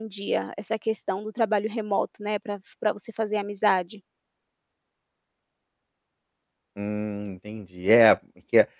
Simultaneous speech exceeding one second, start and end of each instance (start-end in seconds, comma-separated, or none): none